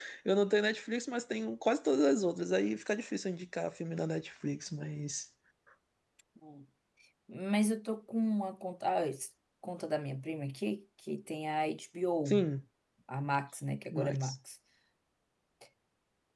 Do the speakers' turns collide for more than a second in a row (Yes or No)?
No